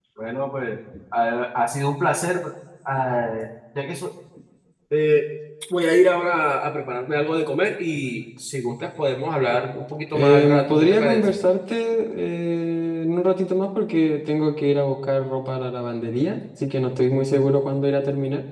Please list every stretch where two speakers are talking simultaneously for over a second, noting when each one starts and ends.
10.1-11.3

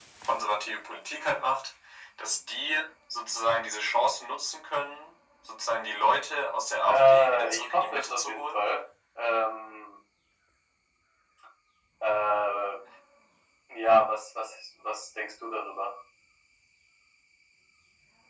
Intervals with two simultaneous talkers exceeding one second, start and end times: 6.9-8.6

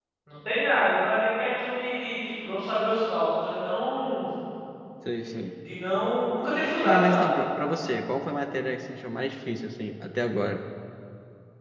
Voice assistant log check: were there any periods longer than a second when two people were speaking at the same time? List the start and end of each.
none

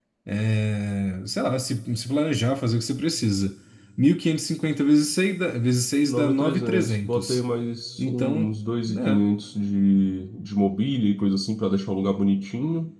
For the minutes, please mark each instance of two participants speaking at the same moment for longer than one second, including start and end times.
6.0-7.4

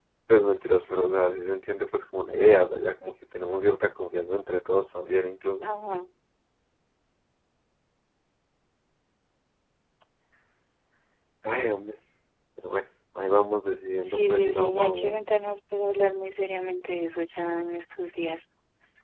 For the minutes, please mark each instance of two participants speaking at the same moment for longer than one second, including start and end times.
14.0-15.3

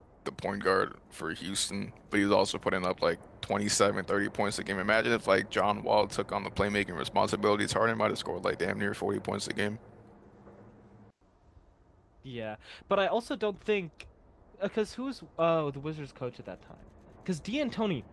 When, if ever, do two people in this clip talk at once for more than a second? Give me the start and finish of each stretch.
none

